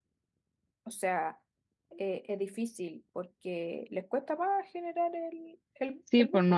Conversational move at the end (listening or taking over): taking over